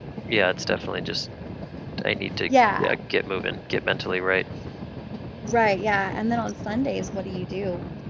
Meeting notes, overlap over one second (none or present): none